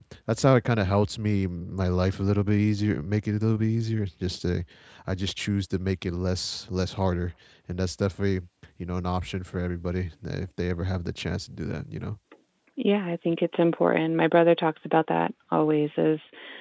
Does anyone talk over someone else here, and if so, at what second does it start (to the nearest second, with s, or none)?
none